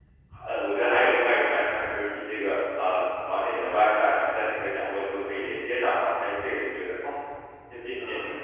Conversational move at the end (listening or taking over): taking over